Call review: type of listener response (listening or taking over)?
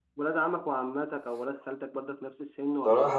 taking over